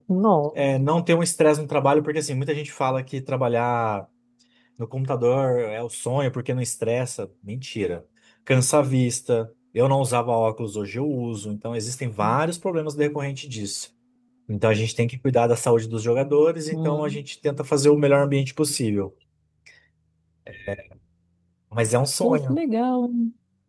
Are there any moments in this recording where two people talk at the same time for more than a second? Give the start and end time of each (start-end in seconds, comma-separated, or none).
none